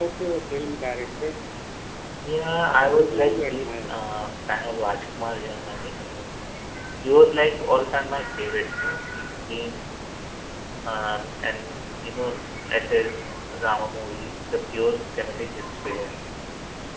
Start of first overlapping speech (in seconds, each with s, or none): 2.6 s